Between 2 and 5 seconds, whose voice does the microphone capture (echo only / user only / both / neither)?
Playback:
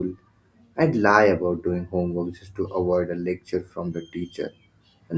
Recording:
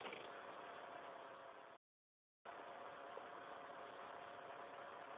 neither